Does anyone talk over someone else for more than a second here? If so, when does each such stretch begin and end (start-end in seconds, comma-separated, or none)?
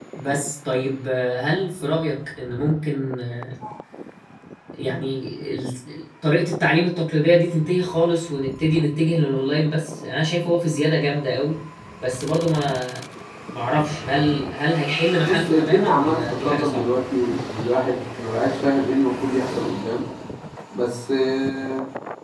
15.2-16.9